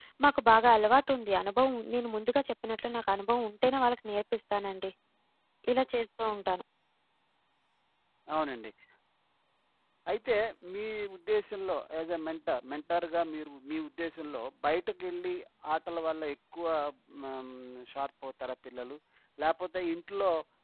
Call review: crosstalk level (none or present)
none